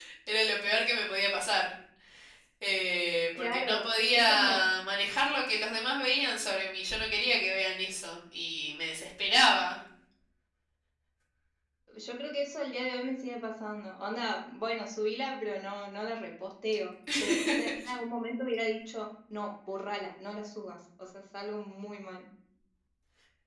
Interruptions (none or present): present